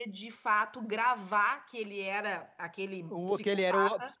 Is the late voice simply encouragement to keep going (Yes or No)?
No